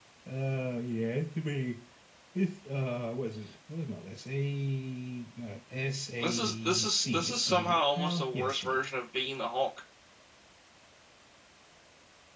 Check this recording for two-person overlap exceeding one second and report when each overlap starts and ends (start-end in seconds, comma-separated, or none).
6.2-8.8